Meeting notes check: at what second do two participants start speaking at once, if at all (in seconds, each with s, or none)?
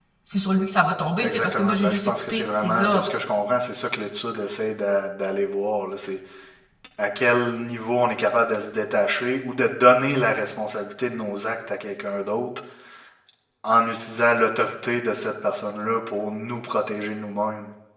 1.2 s